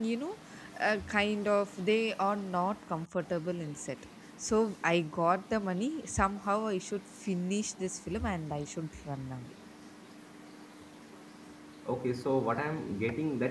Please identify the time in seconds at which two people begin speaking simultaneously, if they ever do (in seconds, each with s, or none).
none